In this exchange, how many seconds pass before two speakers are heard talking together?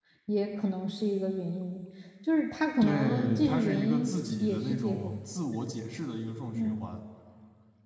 3 s

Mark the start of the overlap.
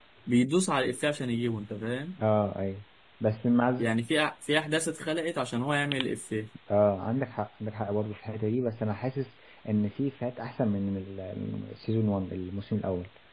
none

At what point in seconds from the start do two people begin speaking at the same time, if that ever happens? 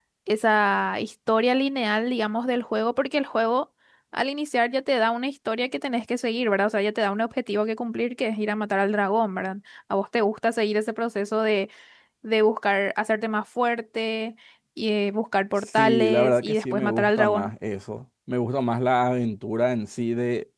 16 s

